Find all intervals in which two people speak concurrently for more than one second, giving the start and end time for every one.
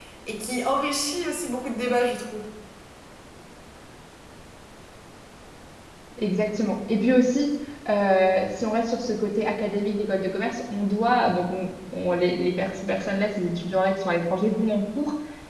none

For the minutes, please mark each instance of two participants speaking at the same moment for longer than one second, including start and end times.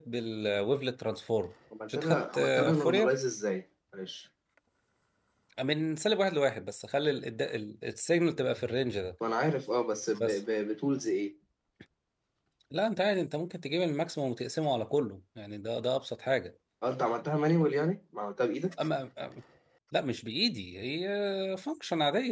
1.9-3.1

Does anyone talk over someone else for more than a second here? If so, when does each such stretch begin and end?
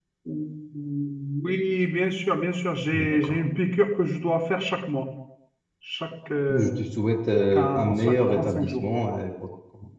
7.5-8.8

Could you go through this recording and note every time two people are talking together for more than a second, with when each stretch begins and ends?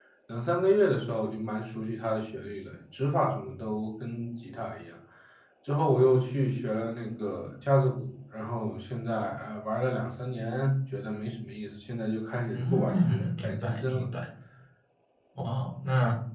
12.5-14.0

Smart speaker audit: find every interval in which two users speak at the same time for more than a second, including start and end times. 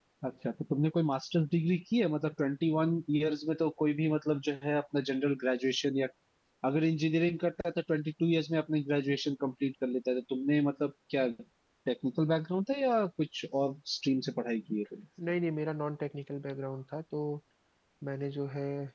none

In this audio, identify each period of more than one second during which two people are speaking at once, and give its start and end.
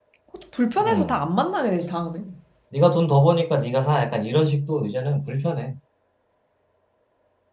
none

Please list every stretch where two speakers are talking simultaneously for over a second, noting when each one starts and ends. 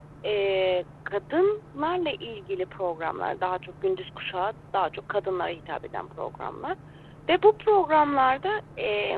none

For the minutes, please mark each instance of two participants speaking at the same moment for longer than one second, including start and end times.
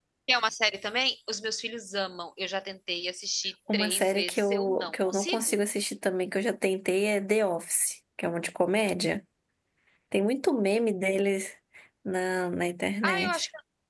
3.7-5.5

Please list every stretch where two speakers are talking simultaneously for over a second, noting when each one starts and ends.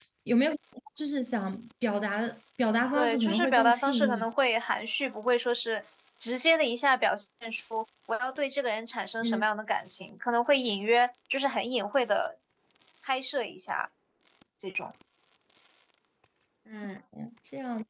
2.9-4.3

